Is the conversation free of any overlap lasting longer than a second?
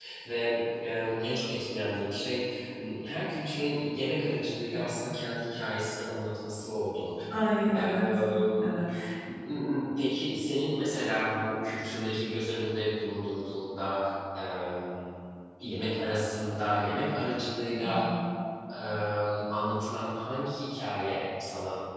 Yes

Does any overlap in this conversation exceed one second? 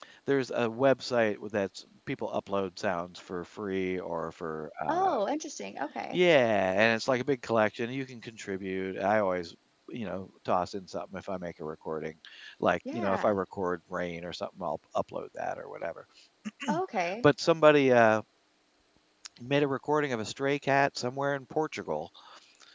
No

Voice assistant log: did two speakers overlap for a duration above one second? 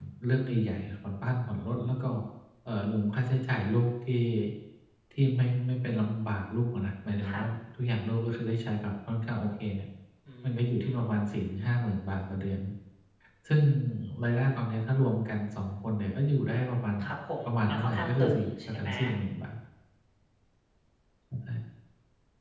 Yes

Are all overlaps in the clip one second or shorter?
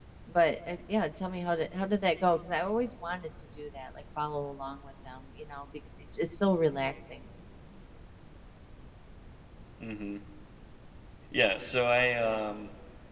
Yes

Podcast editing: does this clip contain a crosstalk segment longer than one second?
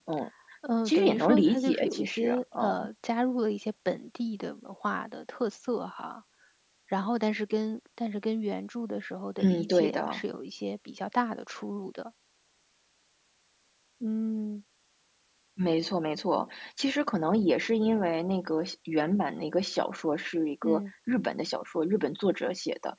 Yes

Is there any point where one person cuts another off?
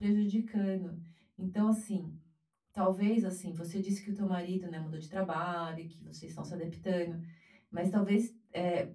No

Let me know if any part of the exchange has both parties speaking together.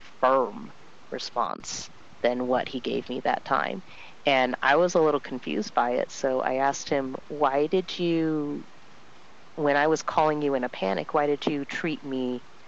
No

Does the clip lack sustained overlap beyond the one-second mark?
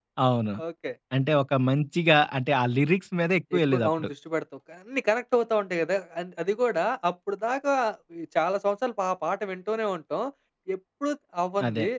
Yes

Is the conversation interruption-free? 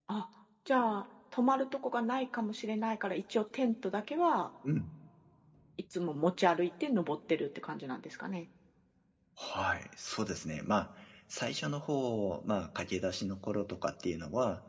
Yes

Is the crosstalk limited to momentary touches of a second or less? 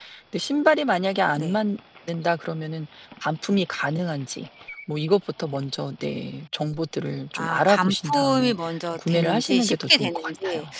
No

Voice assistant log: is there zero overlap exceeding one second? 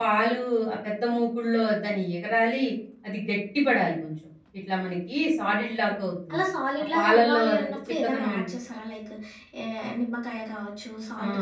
No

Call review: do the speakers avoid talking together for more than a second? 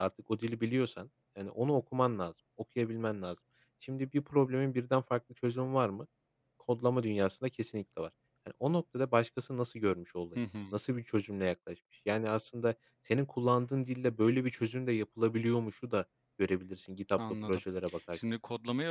Yes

